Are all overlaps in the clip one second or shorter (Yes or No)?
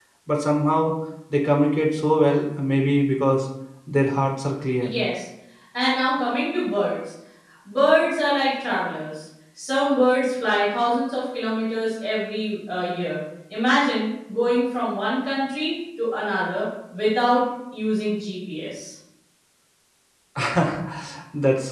Yes